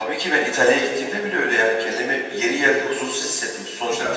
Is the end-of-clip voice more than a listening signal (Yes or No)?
No